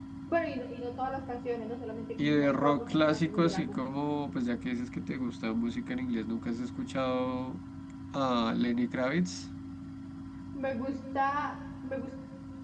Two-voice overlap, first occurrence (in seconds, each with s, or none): 2.2 s